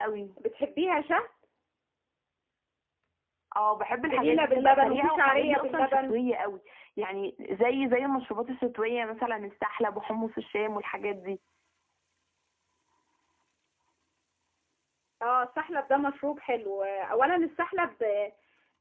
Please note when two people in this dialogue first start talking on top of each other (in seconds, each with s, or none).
4.0 s